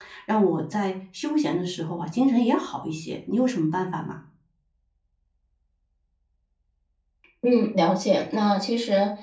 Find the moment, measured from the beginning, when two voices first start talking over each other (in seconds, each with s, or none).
none